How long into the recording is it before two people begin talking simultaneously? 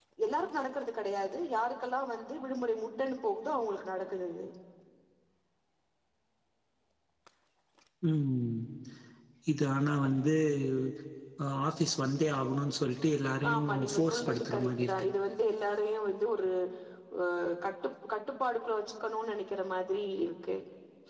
14 s

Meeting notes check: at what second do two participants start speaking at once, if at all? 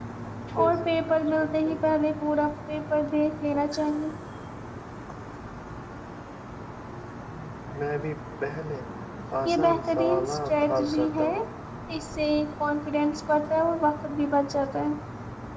1 s

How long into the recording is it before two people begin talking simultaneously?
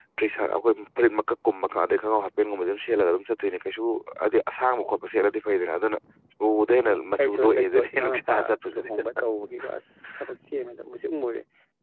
7 s

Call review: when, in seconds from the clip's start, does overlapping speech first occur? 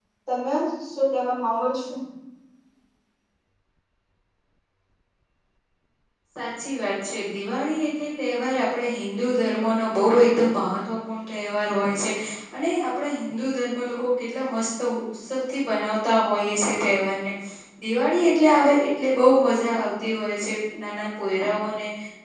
none

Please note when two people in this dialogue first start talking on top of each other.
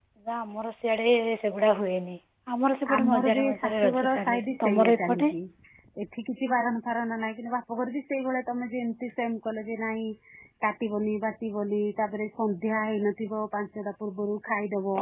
3 s

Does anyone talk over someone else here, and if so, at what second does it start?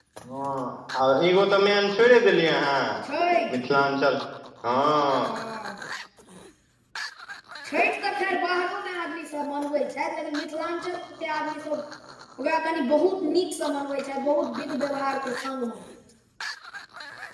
none

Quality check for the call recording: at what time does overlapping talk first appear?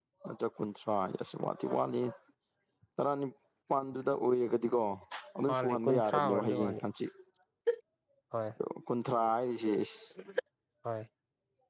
5 s

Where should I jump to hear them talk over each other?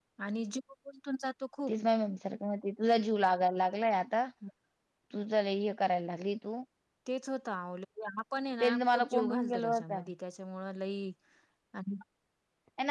9 s

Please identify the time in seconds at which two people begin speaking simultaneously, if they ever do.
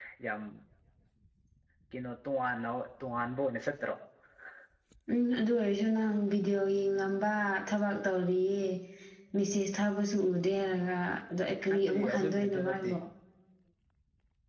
12 s

